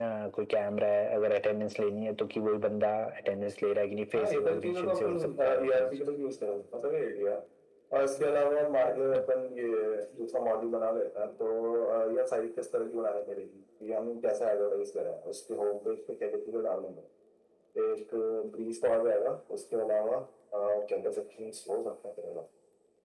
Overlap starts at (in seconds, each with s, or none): 4.2 s